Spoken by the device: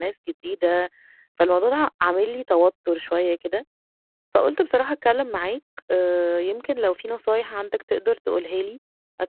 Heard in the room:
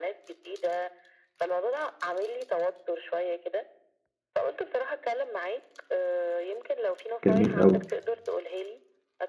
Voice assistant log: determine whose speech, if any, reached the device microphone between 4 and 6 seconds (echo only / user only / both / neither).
echo only